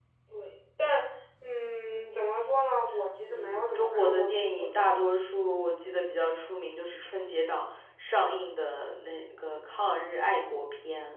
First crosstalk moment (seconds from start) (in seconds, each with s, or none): 3.3 s